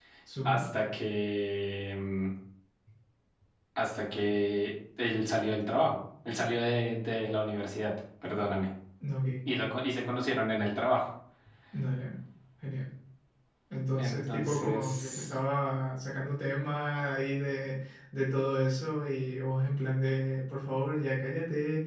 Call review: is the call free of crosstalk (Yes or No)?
No